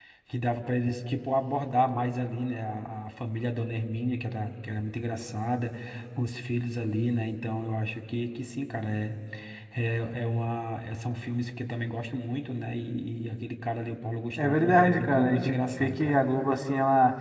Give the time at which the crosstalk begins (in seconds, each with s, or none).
14.4 s